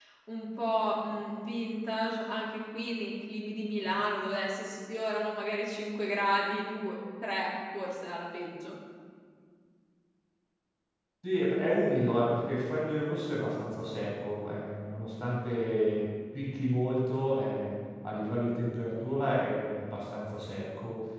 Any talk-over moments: No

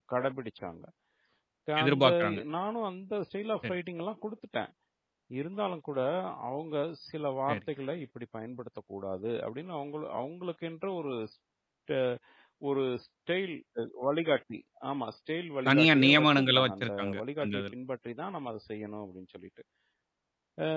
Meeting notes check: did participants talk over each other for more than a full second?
Yes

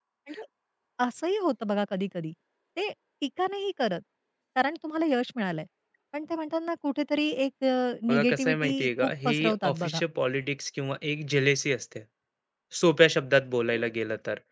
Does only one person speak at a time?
No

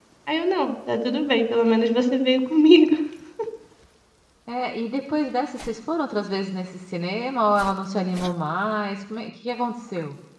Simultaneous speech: No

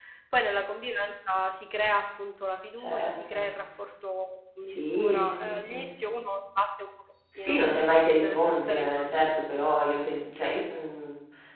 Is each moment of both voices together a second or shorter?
No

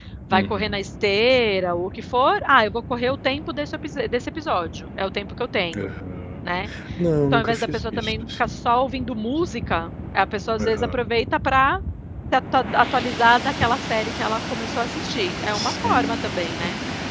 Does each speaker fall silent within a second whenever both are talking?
No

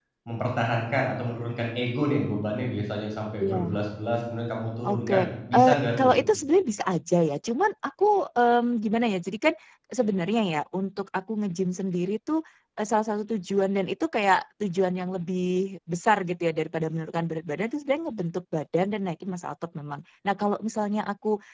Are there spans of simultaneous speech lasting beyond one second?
Yes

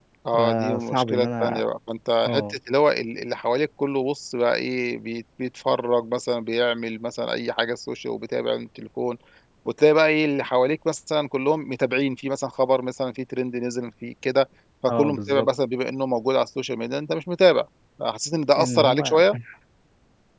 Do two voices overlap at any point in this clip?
Yes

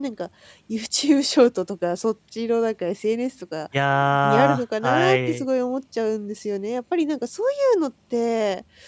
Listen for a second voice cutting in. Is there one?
Yes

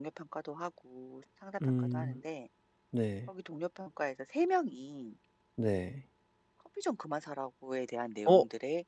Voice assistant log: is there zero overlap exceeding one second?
Yes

